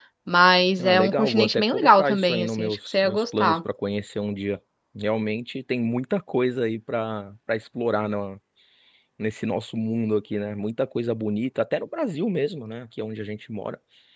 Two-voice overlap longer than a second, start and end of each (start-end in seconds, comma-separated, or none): 0.8-3.6